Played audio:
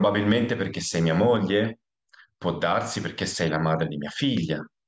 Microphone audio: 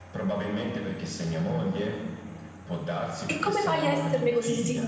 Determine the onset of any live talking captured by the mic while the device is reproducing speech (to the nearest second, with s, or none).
3 s